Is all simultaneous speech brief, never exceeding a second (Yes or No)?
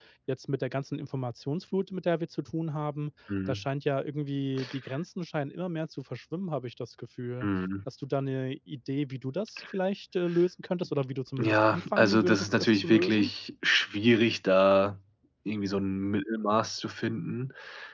No